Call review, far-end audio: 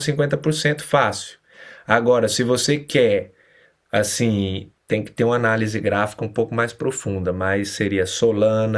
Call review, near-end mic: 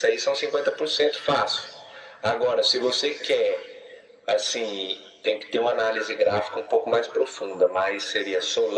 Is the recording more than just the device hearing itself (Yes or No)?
No